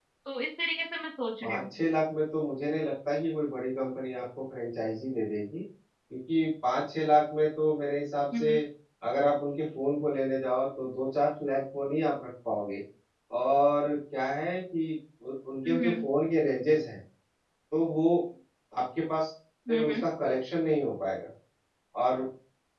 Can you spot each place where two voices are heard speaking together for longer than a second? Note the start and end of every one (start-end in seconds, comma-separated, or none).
none